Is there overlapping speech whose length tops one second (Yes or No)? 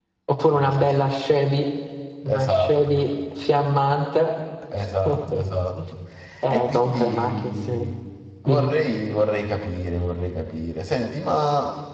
Yes